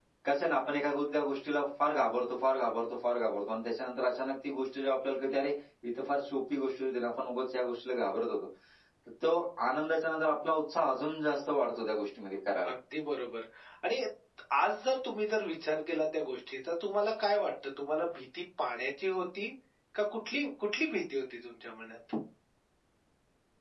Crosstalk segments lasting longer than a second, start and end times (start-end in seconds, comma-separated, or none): none